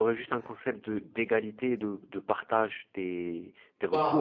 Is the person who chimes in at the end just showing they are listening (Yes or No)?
No